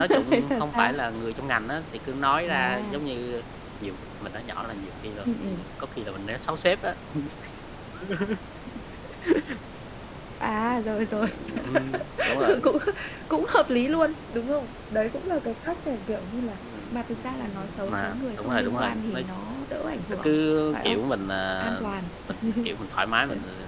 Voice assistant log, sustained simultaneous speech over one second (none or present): present